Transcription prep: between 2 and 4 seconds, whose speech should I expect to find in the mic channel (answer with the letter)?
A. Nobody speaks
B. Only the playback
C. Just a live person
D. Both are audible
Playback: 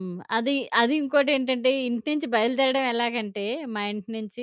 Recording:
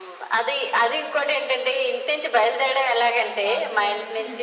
D